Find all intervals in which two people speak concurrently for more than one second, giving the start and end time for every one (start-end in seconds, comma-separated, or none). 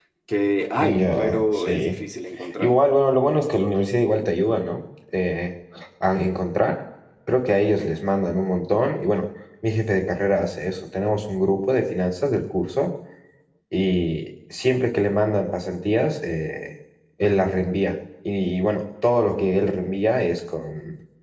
0.8-2.0